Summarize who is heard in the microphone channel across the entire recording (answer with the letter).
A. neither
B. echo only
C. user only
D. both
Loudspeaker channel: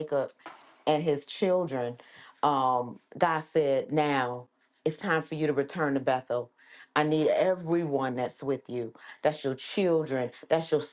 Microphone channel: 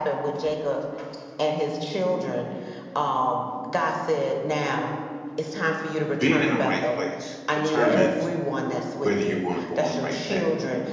D